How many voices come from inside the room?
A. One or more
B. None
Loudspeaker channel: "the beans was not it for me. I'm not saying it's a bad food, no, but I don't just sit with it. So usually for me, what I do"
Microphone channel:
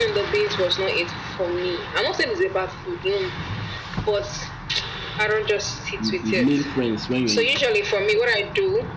A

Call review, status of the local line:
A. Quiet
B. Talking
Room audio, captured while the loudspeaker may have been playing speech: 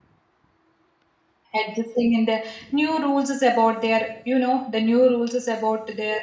B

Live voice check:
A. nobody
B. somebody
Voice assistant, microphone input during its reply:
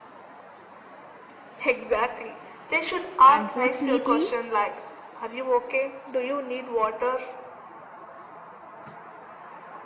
B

